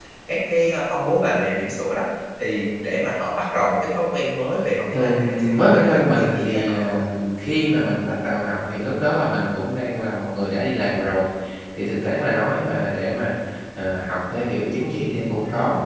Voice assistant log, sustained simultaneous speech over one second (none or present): present